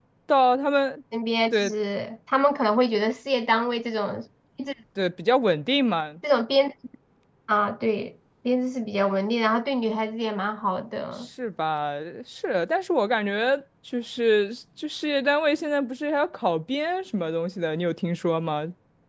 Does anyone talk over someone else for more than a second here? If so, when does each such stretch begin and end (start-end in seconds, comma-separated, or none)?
none